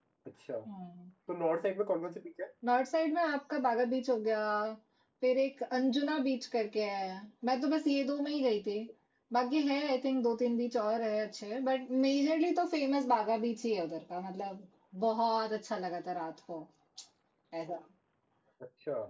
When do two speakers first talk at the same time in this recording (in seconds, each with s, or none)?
none